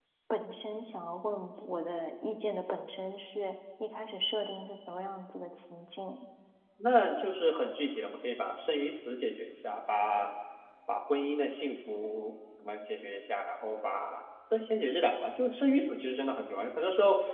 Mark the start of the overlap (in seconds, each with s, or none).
none